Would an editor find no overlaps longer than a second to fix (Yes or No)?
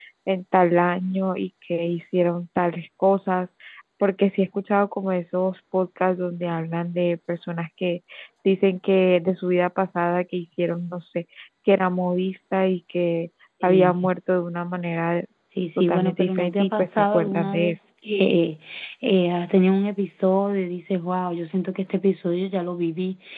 No